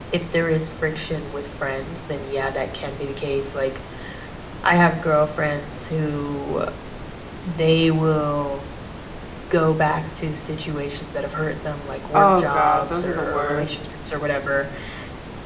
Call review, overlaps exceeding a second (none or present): present